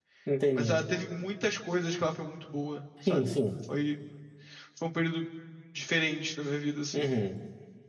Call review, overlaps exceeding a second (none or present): none